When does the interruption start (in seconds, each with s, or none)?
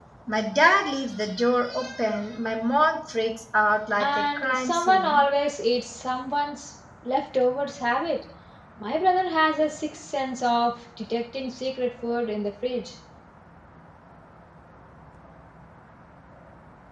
4.0 s